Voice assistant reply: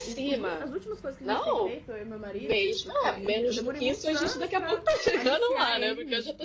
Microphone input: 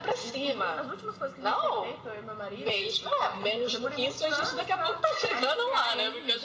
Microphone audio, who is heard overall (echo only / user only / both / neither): echo only